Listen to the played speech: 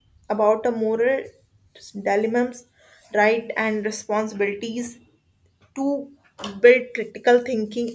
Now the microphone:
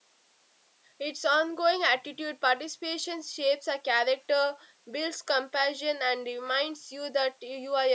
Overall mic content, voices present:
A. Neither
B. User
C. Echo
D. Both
B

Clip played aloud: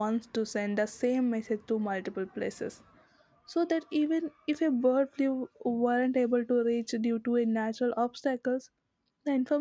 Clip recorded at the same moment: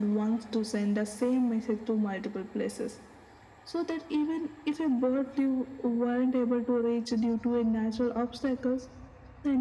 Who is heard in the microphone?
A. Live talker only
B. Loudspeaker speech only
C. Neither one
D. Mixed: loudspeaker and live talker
B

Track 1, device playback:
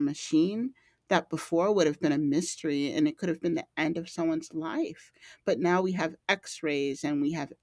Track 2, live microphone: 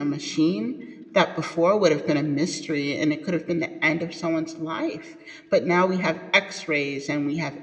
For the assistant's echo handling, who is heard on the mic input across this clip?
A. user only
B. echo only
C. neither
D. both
B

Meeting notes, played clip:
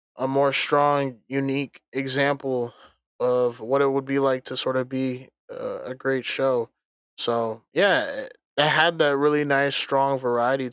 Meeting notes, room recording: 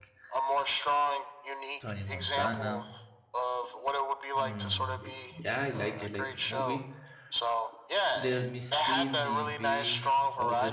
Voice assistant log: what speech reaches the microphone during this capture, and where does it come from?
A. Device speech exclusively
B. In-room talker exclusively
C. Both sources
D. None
C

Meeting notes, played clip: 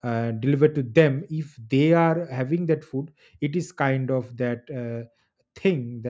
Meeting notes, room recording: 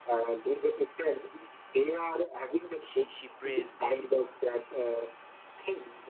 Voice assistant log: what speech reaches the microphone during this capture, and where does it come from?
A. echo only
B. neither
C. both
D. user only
C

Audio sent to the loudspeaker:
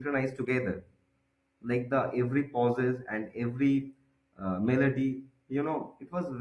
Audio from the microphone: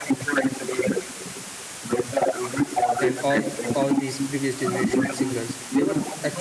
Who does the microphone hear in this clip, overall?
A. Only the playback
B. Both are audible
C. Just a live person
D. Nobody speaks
B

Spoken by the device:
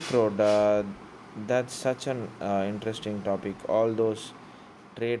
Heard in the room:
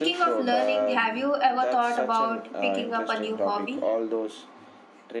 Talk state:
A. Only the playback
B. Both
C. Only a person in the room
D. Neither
B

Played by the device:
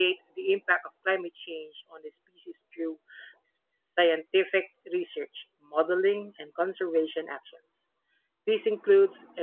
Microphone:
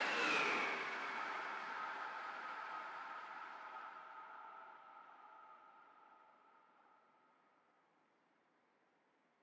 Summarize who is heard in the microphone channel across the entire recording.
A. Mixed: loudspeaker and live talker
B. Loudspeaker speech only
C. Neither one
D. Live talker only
C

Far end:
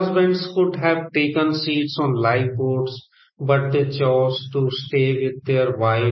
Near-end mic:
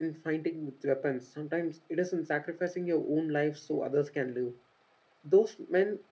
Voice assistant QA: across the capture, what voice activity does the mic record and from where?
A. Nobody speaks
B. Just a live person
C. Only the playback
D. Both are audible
B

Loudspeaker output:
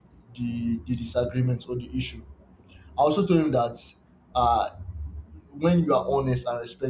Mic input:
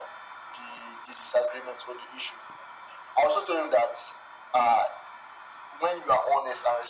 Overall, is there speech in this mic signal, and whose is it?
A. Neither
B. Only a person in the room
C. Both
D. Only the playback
D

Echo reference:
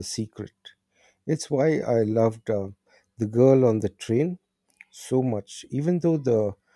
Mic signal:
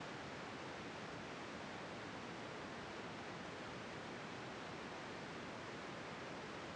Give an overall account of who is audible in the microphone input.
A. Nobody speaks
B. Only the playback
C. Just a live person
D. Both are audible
A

